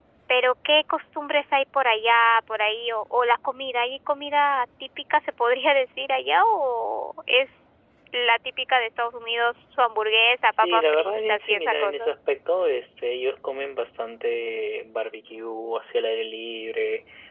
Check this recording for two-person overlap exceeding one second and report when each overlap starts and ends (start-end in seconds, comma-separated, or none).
10.6-12.1